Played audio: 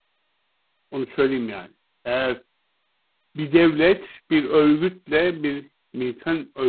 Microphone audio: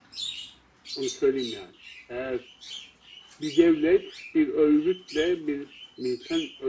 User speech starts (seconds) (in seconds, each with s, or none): none